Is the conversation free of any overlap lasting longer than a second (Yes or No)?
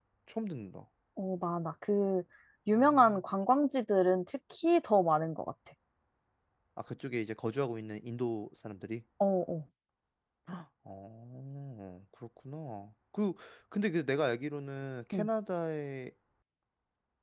Yes